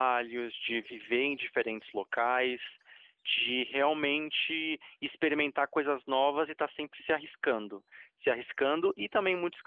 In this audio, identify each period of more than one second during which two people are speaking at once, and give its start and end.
none

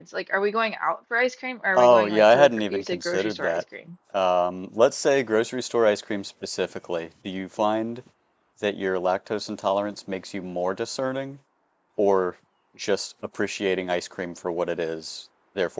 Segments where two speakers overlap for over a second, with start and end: 1.8-3.6

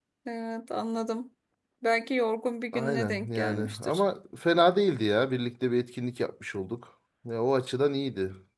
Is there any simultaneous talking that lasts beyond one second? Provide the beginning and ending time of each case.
2.7-4.0

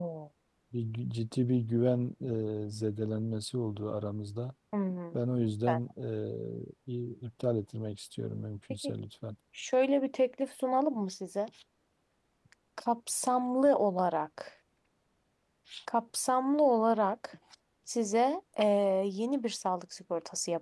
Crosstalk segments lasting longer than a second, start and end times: none

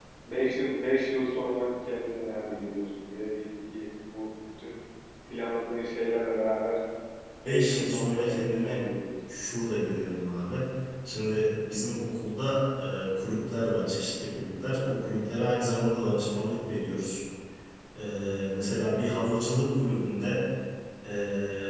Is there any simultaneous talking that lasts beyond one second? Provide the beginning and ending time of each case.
7.4-8.8

